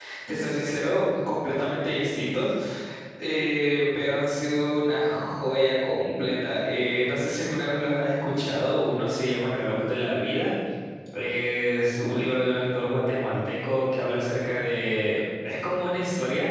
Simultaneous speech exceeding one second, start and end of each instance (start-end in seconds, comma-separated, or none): none